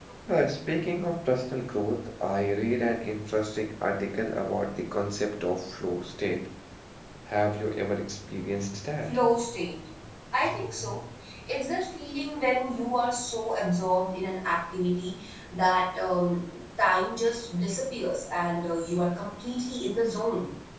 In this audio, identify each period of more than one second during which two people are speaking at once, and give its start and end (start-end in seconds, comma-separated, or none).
none